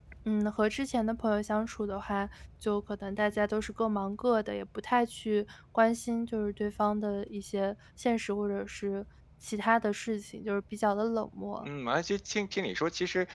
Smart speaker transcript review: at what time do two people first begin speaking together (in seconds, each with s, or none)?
none